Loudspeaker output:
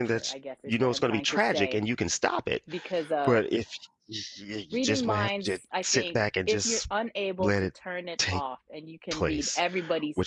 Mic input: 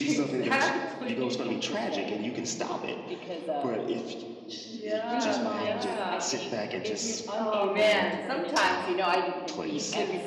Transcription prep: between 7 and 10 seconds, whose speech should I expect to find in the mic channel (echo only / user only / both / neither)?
both